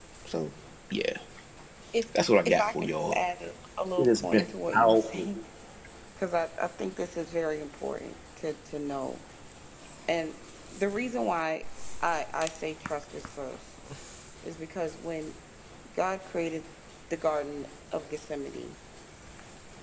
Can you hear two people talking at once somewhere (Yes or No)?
Yes